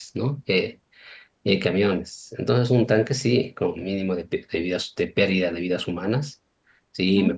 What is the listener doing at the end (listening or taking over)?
listening